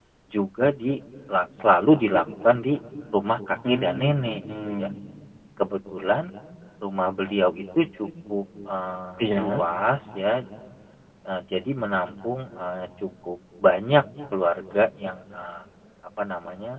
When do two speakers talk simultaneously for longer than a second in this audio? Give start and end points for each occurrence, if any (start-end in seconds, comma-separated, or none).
3.7-4.9